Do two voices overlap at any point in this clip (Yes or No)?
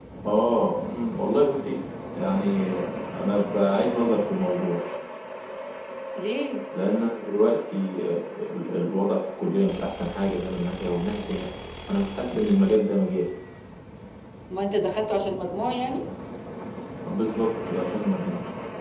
No